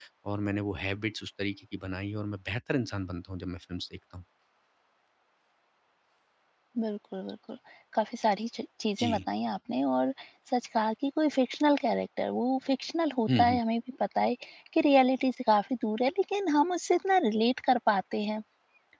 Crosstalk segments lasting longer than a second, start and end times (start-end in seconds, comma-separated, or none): none